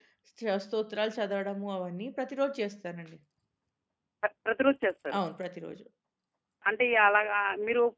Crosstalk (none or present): none